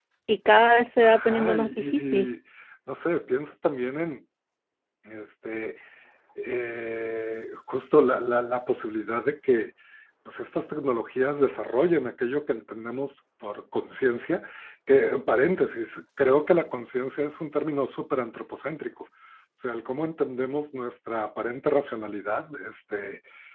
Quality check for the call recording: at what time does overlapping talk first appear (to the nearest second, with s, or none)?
1 s